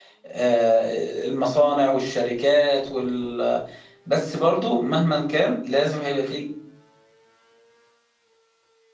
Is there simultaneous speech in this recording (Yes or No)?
No